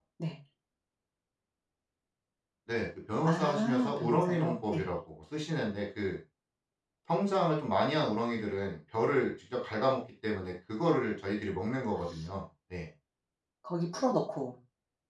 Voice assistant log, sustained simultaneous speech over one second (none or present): present